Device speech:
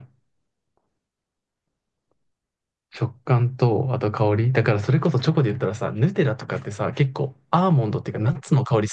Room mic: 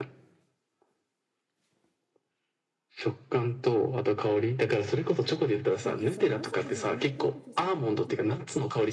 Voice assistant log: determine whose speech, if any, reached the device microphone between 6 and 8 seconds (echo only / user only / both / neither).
both